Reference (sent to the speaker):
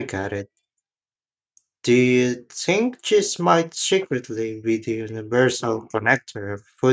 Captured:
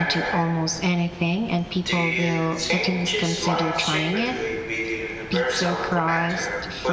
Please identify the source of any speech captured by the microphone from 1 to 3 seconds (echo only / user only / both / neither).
both